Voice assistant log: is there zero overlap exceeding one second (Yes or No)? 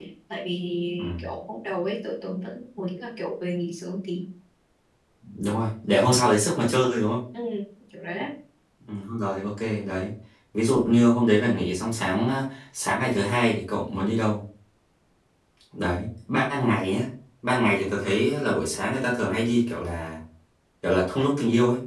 Yes